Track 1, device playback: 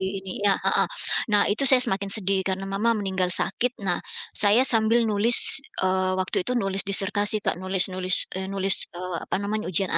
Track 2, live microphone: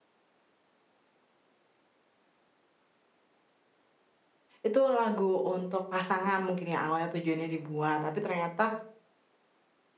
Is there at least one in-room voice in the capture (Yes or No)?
Yes